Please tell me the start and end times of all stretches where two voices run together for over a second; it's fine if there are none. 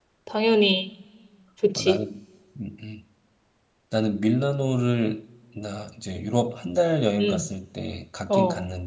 none

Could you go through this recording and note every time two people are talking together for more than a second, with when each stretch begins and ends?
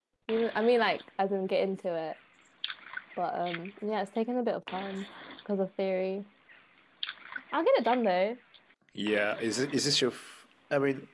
none

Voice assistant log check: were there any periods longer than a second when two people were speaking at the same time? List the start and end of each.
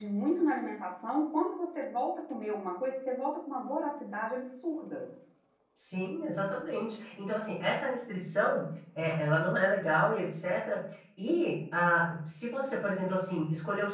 none

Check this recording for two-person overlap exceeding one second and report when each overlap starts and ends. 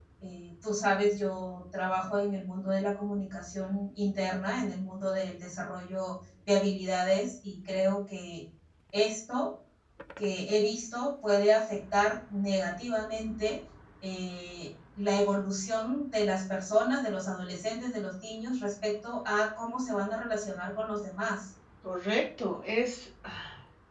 none

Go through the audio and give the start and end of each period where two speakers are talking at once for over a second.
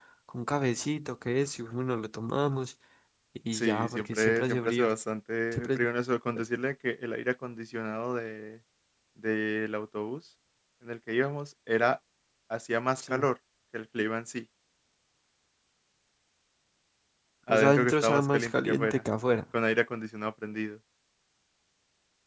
3.5-4.9, 17.5-19.0

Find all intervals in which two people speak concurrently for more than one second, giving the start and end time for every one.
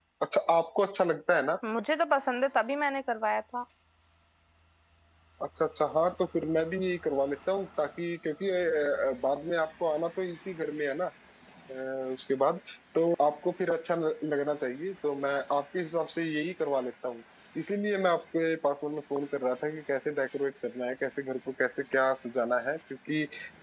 none

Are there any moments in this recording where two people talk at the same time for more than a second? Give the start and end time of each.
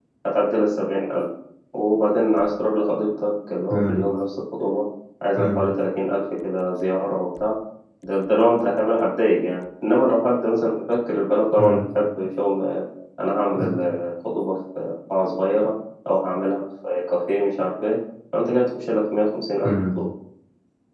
none

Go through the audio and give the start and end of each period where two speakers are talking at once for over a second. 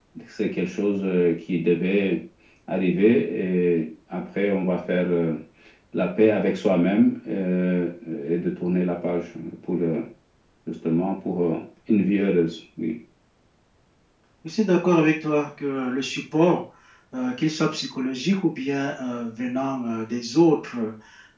none

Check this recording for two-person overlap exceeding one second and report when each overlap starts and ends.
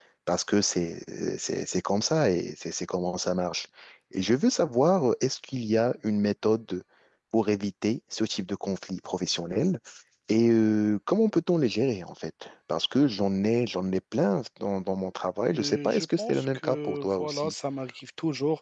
15.6-17.5

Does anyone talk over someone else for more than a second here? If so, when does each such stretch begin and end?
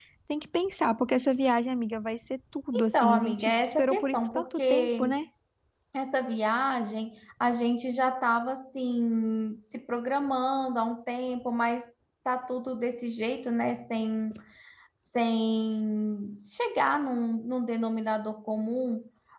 2.7-5.2

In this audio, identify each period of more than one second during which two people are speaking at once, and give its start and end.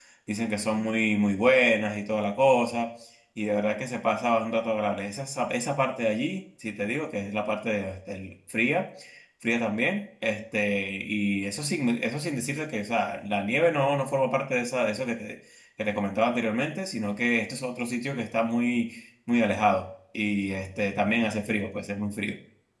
none

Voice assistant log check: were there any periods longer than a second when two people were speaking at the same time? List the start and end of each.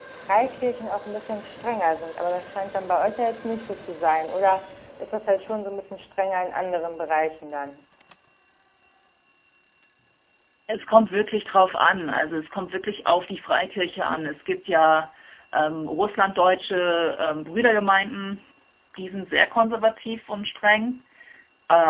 none

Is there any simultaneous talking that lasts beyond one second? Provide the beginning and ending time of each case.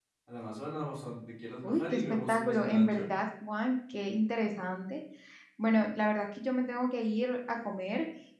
1.6-3.1

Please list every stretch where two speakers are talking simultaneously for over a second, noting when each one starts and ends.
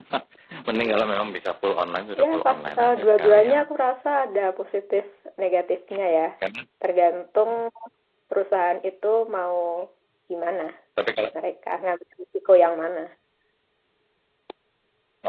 2.2-3.6

